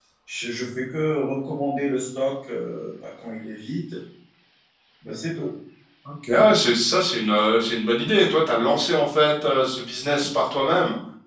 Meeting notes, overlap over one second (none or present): none